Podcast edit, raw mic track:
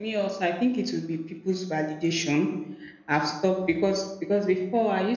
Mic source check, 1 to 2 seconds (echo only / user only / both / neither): user only